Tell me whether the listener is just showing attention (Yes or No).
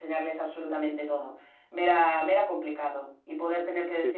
Yes